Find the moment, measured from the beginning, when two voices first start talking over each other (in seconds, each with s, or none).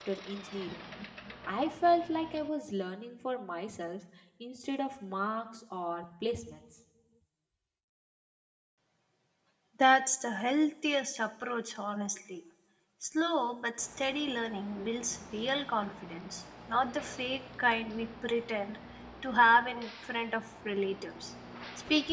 none